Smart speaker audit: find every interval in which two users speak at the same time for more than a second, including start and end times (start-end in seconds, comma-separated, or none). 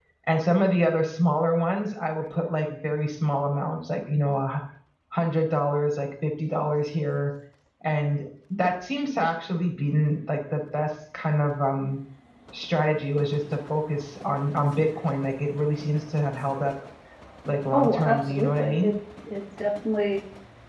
17.7-18.9